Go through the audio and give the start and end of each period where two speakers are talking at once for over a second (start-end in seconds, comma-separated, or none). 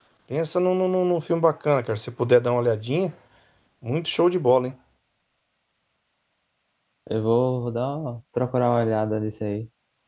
none